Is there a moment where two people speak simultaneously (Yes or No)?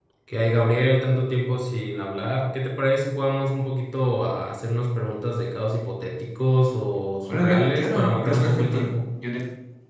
Yes